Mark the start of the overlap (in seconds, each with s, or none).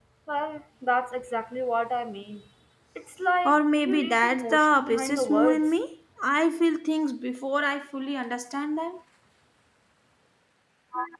3.5 s